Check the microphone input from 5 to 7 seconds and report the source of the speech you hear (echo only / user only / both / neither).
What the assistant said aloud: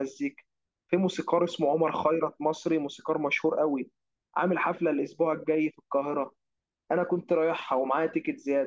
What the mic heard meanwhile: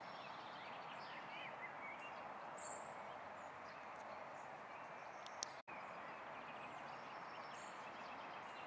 neither